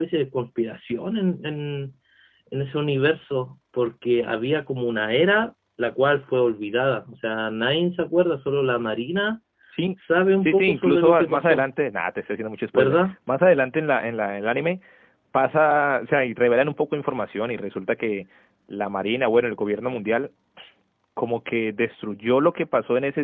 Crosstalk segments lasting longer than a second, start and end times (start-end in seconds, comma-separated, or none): 10.4-11.7